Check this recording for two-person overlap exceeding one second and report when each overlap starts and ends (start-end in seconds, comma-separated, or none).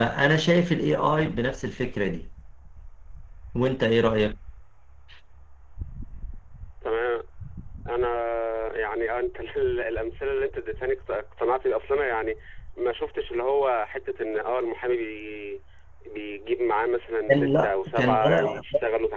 17.3-18.6